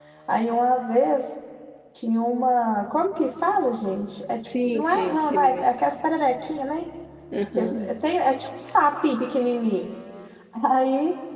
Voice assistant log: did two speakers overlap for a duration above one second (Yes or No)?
Yes